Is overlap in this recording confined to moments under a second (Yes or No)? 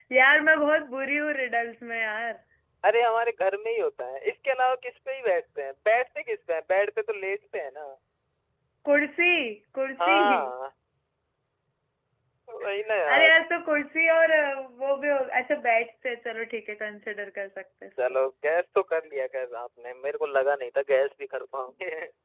Yes